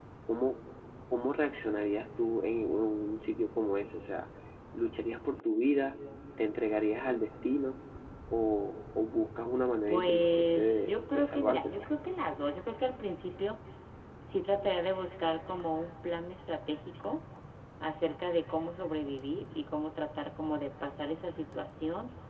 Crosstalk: present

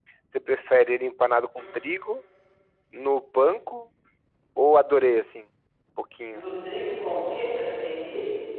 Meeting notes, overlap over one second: none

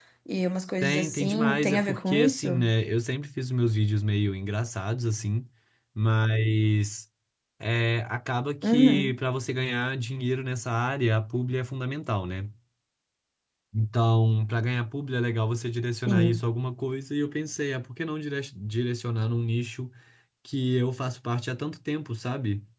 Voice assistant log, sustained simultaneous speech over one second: present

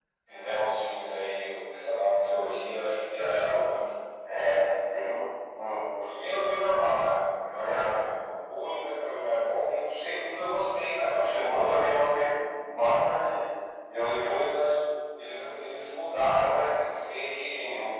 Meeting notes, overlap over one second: present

